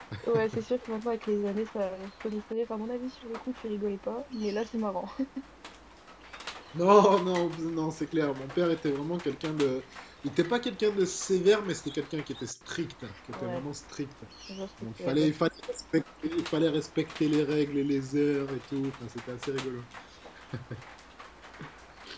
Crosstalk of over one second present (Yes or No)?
No